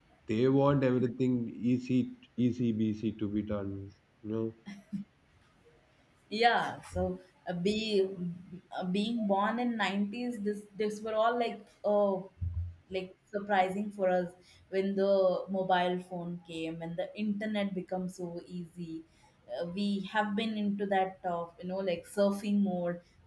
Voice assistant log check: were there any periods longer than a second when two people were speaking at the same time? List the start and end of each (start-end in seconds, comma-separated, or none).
none